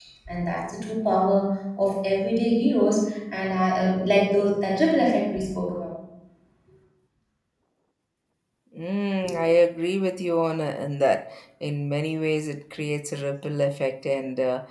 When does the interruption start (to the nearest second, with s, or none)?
none